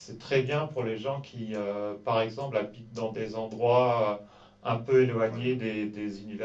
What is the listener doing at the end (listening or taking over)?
listening